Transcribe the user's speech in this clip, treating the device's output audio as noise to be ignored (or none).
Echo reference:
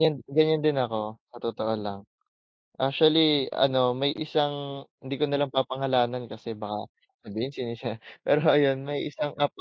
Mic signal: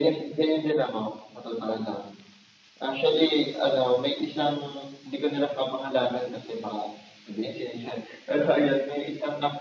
none